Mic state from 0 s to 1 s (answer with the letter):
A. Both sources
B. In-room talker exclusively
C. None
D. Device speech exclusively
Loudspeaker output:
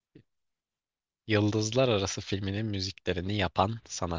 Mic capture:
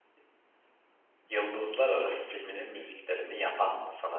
C